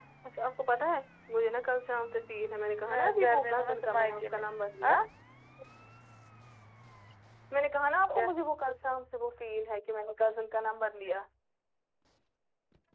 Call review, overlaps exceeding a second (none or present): present